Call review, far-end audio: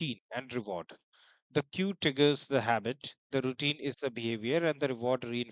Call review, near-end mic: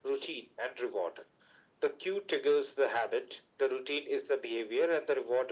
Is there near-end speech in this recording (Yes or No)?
No